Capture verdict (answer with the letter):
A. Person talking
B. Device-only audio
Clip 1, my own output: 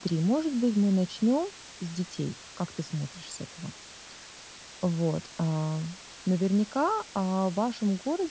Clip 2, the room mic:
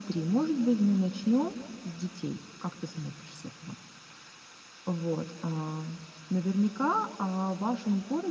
B